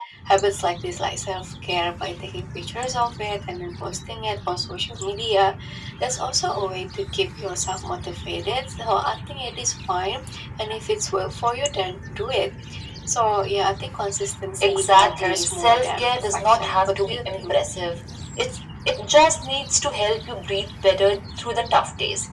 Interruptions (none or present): present